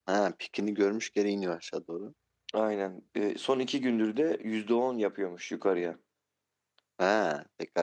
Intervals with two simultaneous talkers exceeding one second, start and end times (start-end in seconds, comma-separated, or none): none